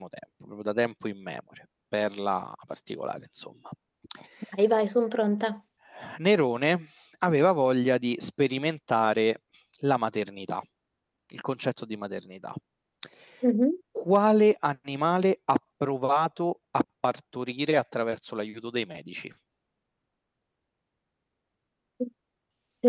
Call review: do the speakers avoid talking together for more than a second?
Yes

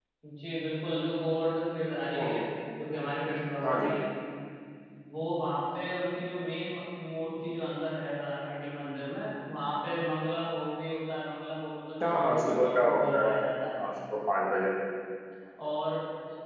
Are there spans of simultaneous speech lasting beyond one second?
Yes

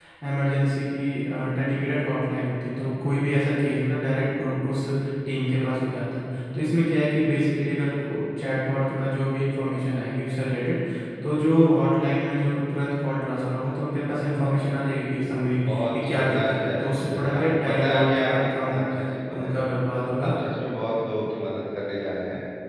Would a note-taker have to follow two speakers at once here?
Yes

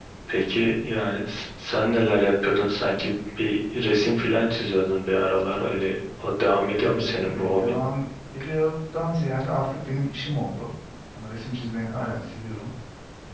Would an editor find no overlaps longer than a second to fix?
Yes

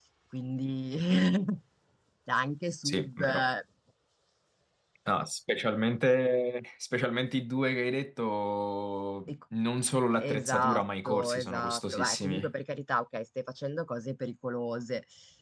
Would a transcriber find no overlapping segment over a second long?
No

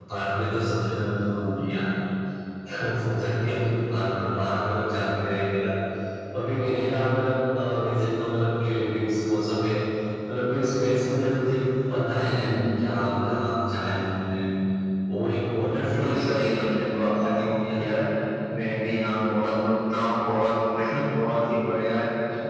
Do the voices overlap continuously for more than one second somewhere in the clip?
Yes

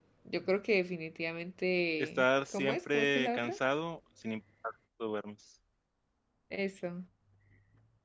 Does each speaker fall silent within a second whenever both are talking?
No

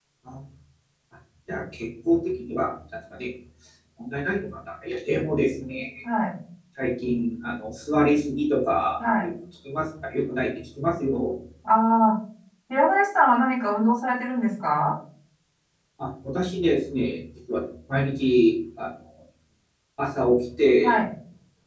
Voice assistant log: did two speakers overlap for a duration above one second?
No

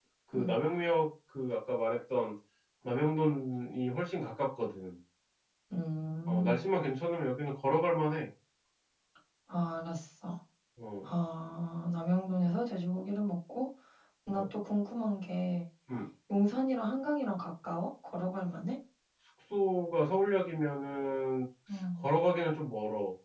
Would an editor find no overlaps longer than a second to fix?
Yes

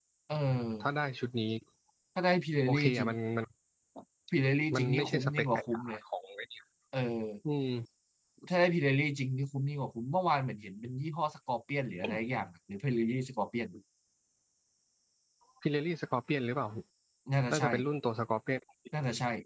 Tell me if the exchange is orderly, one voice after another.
No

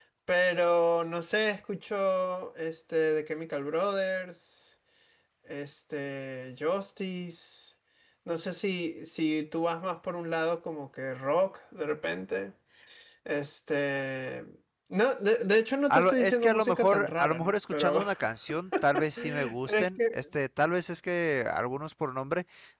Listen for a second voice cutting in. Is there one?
Yes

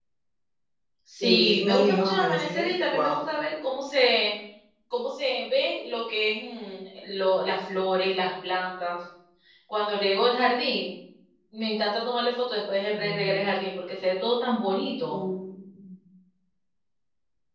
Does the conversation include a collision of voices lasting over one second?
Yes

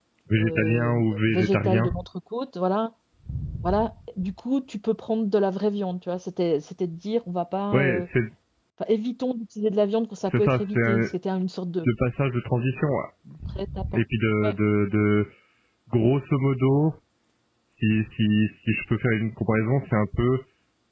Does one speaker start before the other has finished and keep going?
Yes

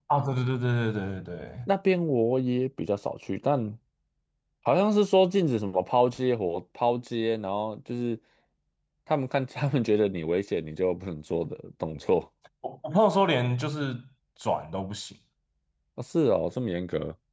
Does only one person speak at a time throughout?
Yes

